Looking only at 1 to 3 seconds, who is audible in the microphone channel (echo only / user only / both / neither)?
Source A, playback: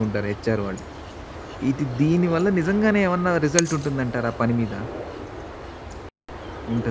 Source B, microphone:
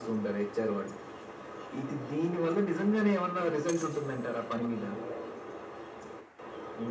echo only